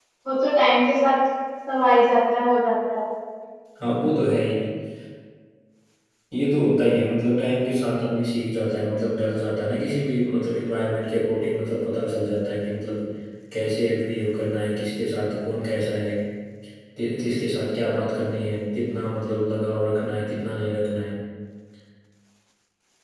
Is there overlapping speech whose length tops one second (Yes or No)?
No